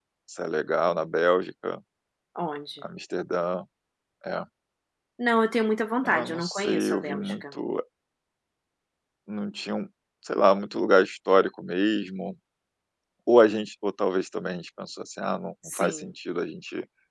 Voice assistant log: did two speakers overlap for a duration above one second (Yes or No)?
Yes